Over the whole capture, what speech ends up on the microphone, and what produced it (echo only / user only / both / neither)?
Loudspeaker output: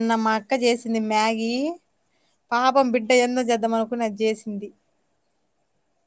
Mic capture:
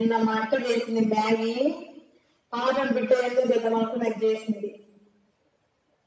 echo only